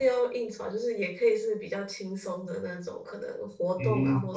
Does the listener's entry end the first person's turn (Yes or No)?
Yes